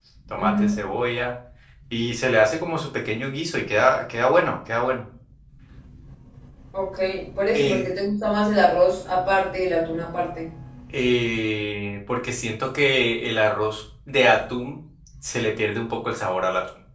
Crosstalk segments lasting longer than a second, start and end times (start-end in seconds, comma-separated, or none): none